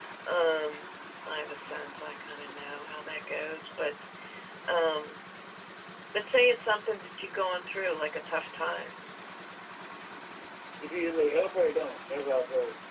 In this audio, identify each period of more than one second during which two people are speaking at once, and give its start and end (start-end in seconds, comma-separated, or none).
none